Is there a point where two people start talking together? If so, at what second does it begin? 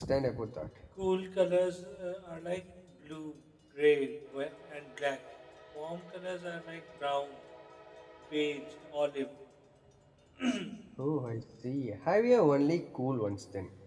none

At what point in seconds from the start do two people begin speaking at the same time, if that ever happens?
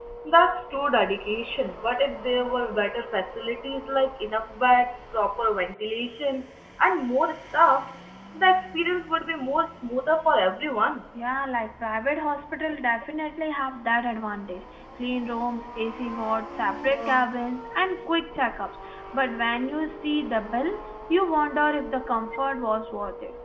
none

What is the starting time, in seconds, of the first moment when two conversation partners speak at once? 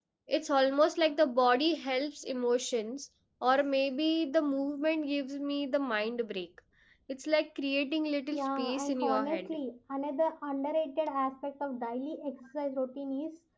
8.3 s

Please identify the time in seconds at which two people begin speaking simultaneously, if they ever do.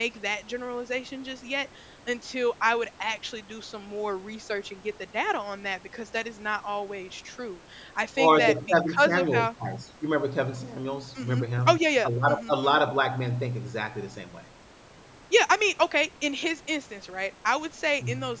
8.2 s

